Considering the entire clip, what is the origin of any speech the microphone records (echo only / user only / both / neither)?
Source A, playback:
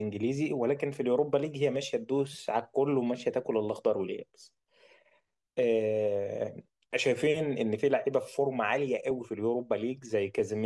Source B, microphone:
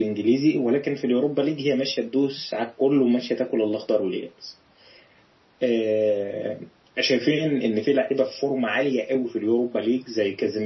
echo only